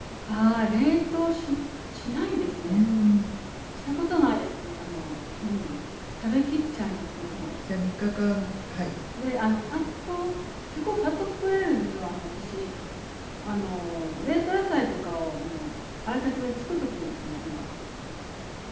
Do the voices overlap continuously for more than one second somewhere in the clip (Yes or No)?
No